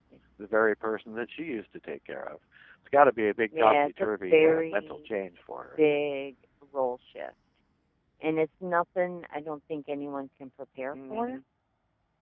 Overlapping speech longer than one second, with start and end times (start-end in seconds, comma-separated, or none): 3.6-5.0